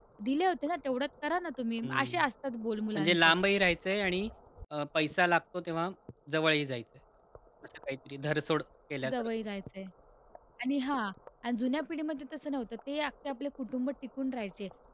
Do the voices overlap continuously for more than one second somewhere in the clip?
No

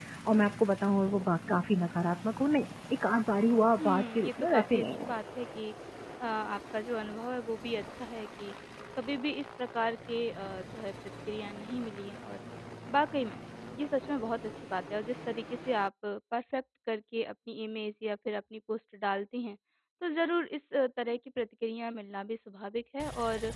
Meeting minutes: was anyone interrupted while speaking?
Yes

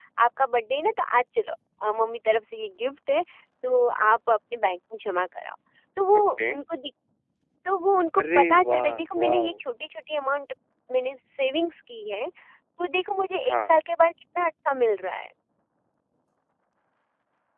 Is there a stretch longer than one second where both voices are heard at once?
Yes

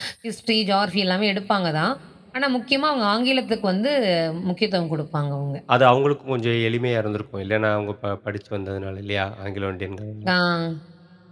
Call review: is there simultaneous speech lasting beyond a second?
No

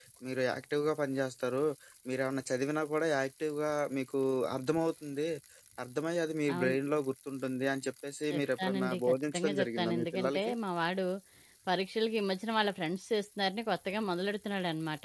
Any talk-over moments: Yes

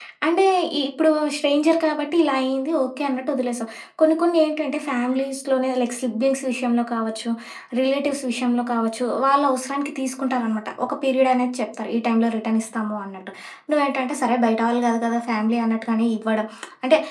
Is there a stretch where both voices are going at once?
No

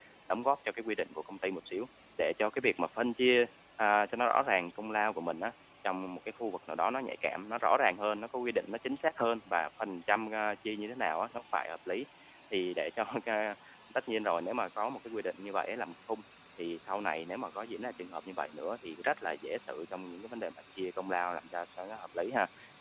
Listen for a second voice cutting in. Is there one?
No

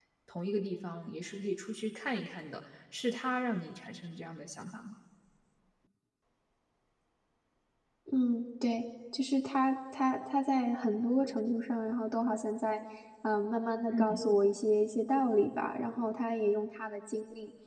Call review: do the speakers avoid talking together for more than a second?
Yes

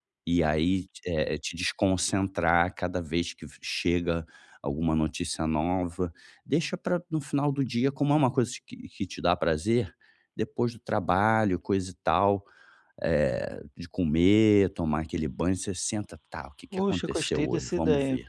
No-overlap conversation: No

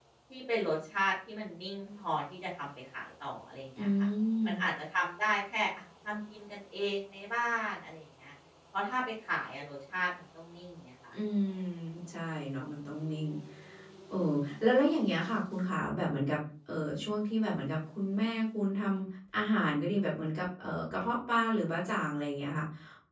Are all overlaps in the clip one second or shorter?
Yes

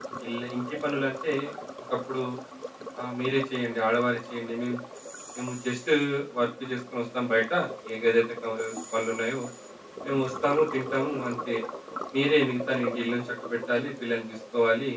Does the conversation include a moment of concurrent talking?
No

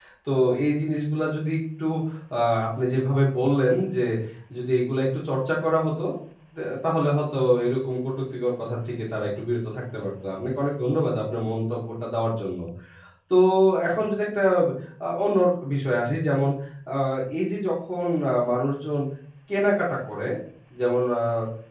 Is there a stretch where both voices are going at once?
No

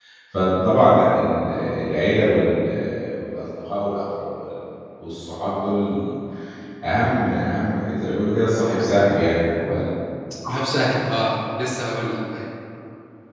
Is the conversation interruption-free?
Yes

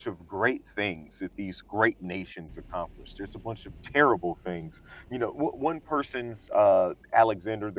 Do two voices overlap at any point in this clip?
No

